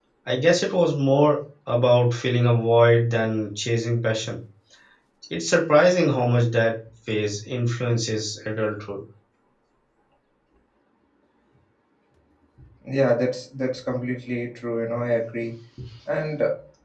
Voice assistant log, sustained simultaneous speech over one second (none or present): none